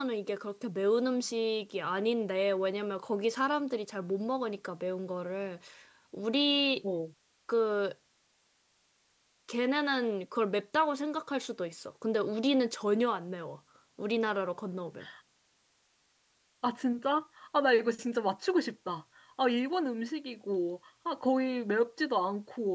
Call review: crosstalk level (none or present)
none